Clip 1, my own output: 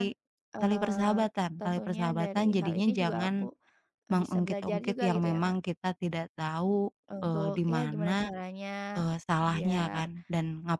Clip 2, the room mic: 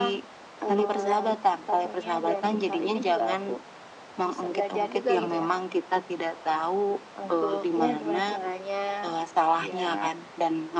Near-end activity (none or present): none